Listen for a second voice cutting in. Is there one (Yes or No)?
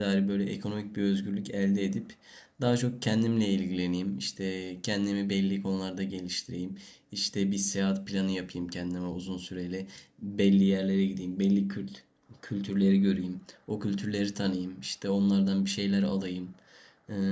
No